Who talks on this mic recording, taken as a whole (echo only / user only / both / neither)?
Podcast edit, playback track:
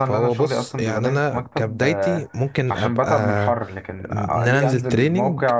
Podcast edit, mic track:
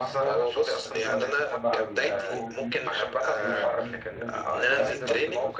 both